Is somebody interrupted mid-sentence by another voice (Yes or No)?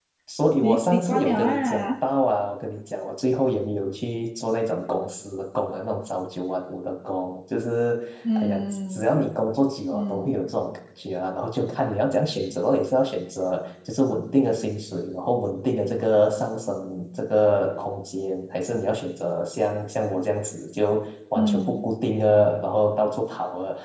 Yes